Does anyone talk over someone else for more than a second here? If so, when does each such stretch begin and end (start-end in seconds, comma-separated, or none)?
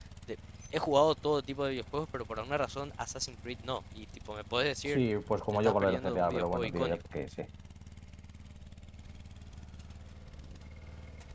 5.5-7.0